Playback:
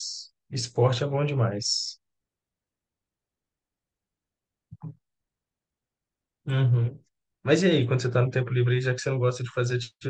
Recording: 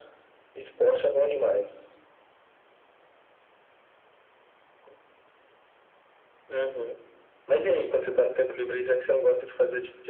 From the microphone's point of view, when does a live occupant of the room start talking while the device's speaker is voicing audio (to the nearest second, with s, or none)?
none